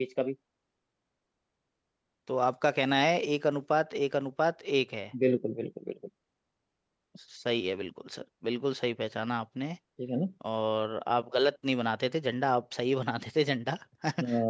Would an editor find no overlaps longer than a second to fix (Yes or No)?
Yes